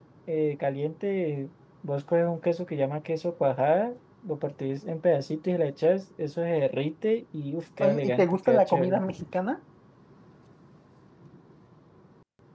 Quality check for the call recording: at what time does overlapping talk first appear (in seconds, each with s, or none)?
7.8 s